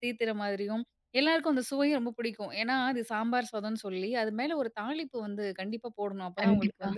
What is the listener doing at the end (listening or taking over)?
listening